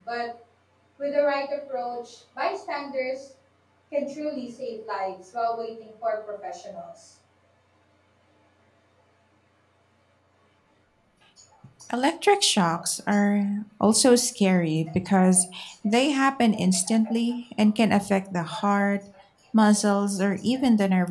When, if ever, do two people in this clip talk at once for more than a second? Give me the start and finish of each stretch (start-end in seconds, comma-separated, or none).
none